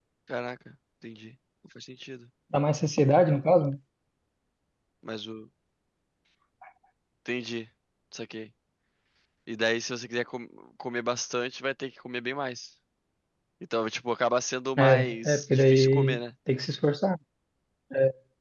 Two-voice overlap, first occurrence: 14.8 s

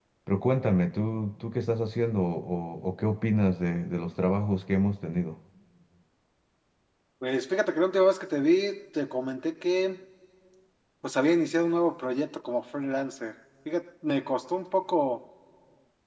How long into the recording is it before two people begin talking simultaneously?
none

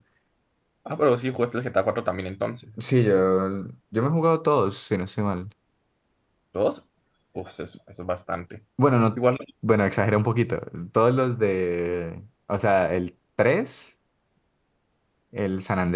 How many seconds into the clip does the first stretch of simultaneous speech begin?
none

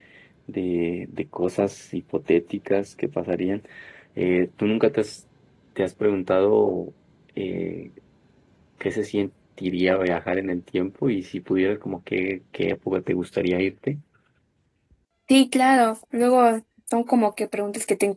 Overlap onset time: none

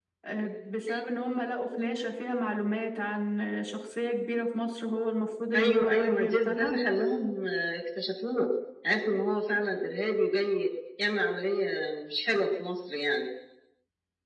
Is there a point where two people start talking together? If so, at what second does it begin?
5.5 s

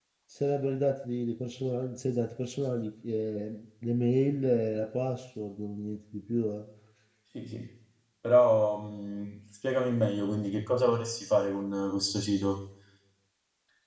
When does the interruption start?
none

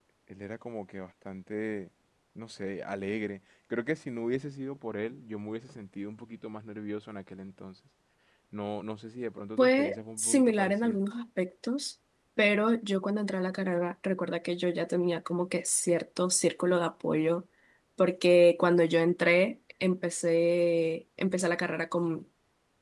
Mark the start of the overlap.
9.6 s

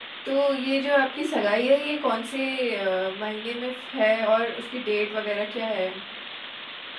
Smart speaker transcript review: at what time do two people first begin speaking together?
none

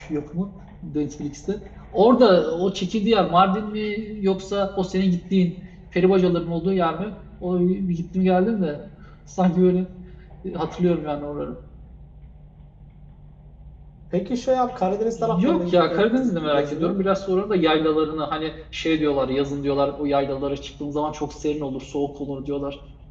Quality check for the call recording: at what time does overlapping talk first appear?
15.2 s

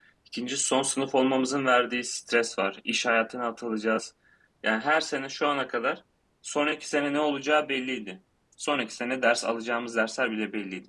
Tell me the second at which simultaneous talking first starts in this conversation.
none

